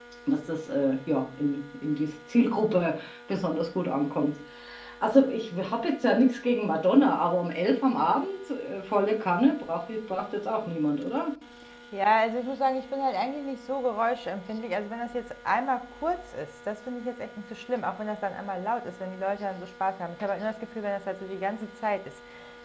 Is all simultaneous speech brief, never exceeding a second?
Yes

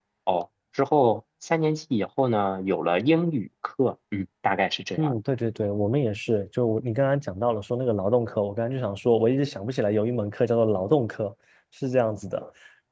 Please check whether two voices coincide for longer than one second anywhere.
No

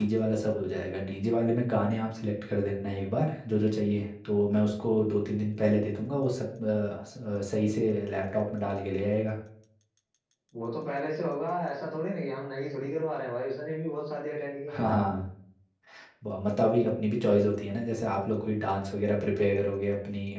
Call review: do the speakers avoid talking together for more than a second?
Yes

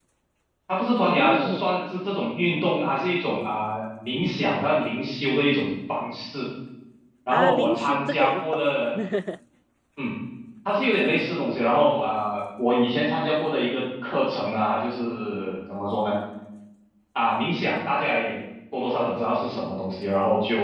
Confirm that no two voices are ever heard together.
No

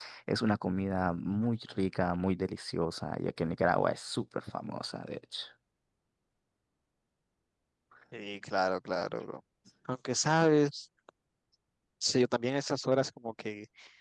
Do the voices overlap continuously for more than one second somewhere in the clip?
No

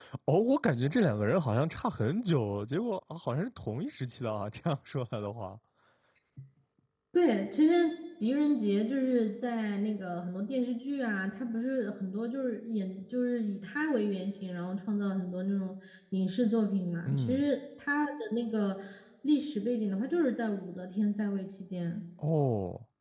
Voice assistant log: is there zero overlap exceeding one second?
Yes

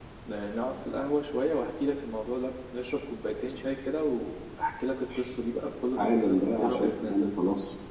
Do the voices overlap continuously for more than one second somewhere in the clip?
Yes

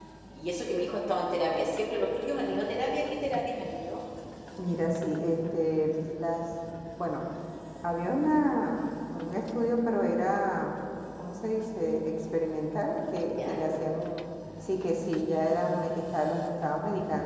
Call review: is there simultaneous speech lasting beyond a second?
No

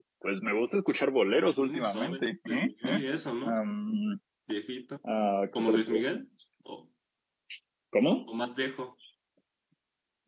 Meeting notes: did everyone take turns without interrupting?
No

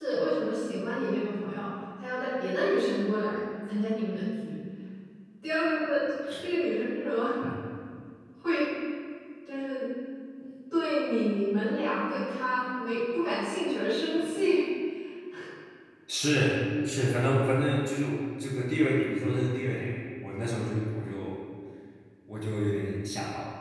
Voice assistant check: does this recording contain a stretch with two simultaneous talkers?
No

